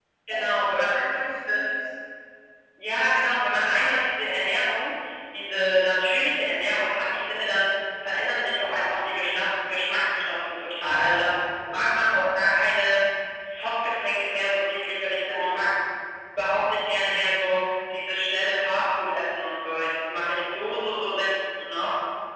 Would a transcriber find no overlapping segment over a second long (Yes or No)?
No